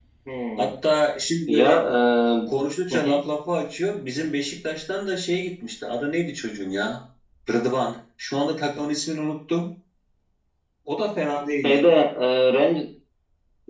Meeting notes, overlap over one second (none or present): none